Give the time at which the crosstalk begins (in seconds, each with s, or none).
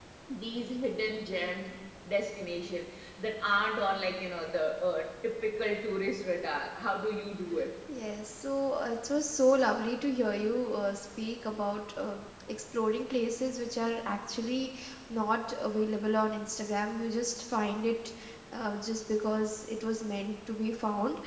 none